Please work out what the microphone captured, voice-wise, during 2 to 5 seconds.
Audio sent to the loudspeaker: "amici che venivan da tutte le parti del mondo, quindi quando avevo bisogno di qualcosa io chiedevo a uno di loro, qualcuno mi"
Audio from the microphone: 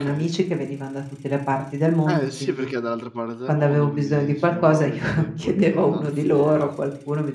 both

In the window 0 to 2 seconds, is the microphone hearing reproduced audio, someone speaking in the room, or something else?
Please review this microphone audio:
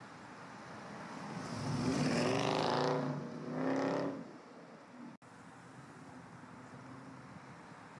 neither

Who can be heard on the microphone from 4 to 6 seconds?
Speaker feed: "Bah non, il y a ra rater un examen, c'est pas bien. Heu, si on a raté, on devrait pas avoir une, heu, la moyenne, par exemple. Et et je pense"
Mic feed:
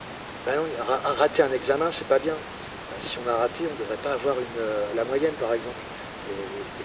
echo only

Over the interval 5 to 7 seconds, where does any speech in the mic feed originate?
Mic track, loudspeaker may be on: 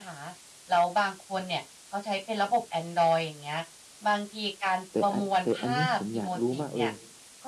both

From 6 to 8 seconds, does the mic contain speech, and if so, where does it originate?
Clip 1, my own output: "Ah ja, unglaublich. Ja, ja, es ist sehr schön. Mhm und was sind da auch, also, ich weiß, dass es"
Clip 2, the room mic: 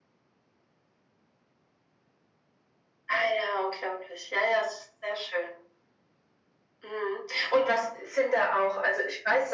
echo only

